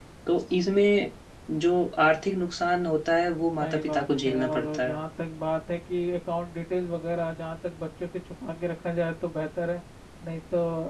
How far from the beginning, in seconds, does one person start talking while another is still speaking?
4 s

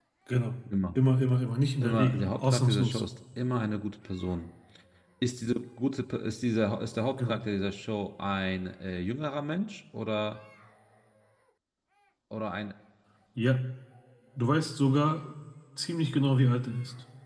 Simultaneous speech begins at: 2 s

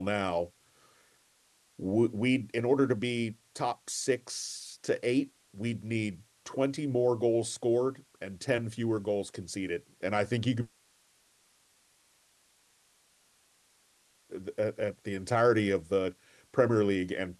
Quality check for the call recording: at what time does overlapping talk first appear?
none

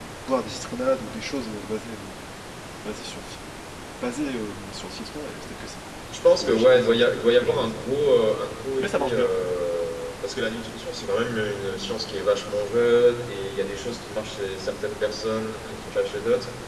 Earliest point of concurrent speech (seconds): 6 s

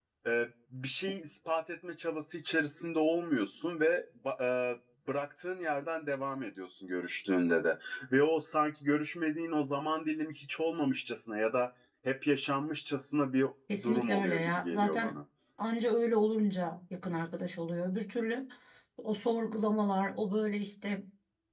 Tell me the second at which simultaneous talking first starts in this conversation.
14 s

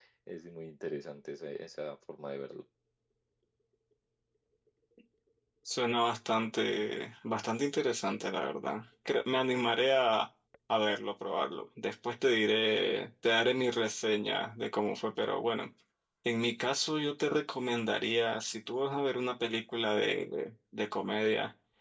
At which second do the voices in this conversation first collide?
none

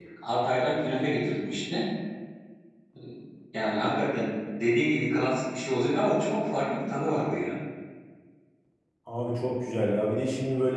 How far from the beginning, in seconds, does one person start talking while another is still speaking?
none

